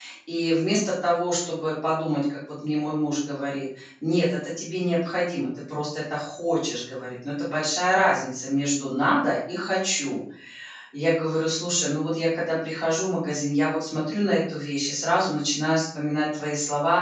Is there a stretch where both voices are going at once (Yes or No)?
No